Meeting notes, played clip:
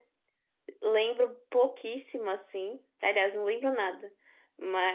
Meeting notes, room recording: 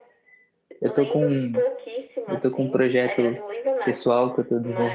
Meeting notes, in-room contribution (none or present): present